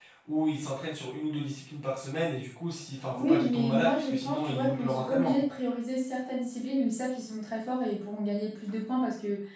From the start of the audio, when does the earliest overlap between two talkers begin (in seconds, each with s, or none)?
3.1 s